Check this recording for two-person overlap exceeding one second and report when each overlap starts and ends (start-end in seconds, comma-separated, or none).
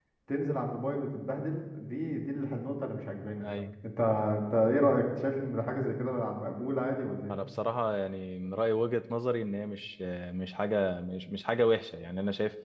none